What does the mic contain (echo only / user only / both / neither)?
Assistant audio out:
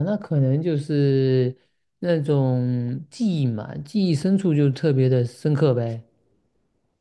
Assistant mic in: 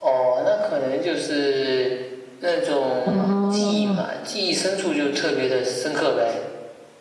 both